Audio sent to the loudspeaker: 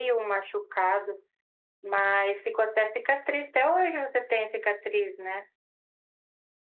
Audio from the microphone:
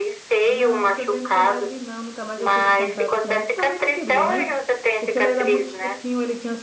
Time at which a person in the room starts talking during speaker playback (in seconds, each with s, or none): 0.5 s